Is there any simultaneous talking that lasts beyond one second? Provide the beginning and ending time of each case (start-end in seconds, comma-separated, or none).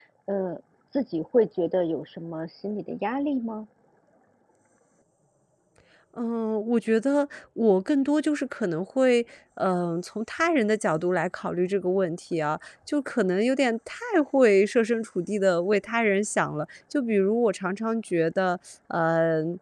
none